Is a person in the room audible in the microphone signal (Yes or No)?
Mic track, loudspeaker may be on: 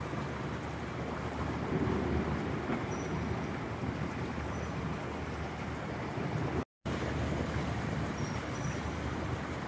No